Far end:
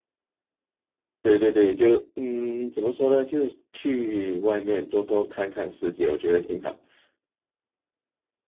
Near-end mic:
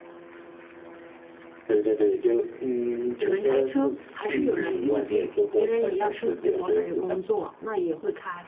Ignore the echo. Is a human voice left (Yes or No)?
Yes